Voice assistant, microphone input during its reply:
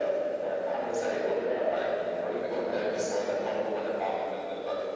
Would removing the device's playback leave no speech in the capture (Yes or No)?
Yes